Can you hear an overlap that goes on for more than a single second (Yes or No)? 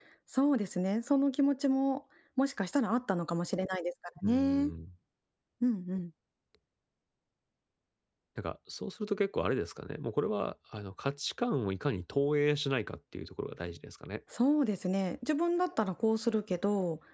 No